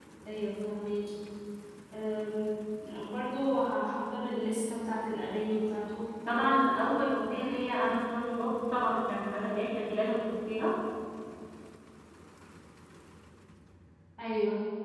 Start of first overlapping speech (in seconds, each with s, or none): none